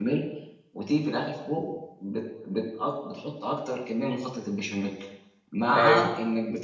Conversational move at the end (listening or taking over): listening